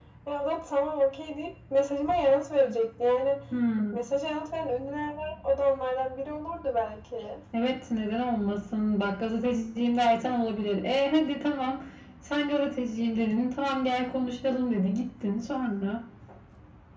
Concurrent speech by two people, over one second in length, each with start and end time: none

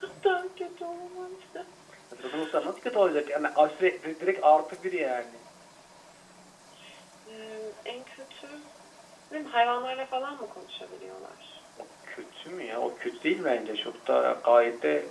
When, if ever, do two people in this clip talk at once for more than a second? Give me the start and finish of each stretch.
none

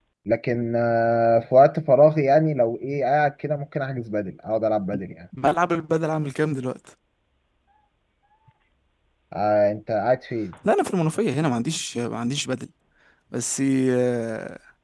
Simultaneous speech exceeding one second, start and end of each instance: none

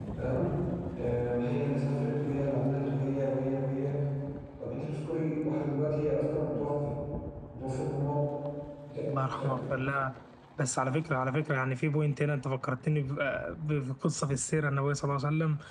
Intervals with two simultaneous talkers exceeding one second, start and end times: none

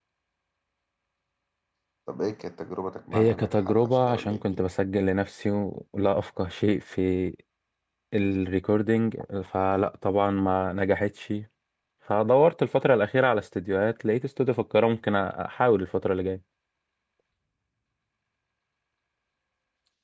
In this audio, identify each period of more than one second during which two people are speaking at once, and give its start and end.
3.1-4.7

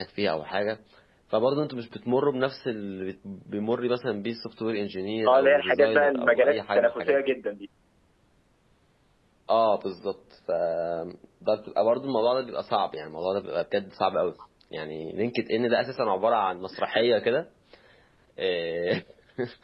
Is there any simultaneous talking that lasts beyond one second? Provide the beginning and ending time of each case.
5.3-7.2

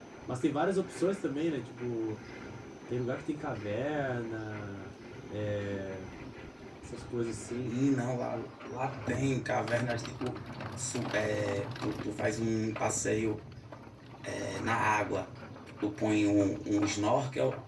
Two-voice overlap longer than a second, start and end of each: none

